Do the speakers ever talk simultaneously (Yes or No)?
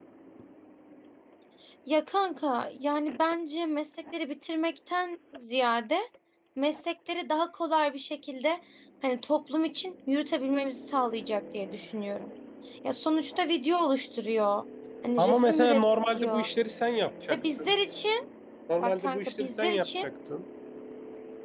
Yes